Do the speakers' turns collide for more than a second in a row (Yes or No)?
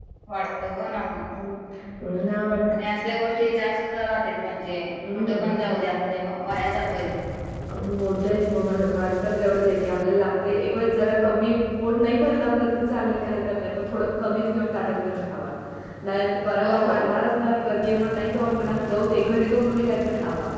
No